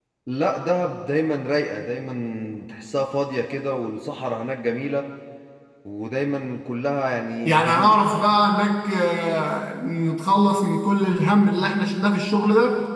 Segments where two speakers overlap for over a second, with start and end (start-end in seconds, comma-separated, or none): none